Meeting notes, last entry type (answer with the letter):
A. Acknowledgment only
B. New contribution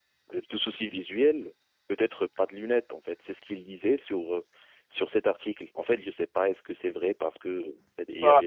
B